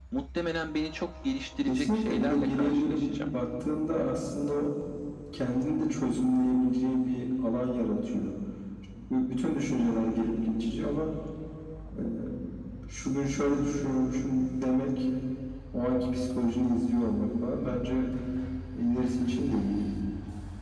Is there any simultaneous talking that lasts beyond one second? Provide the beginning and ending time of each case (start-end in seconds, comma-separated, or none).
1.7-3.0